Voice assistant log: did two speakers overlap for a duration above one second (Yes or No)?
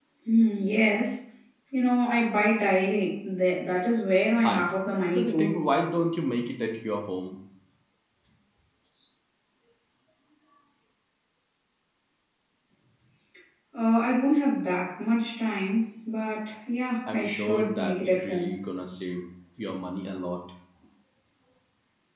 Yes